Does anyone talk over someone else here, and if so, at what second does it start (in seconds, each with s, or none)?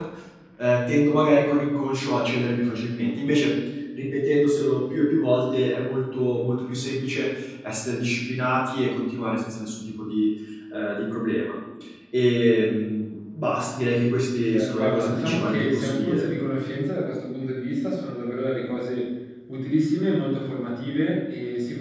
14.5 s